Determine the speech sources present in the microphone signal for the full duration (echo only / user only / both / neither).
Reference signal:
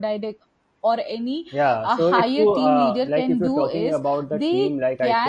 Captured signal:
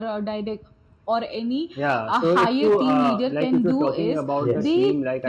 both